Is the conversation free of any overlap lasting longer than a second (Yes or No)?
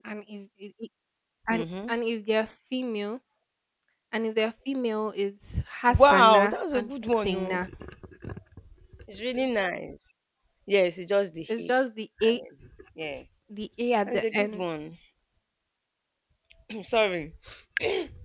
No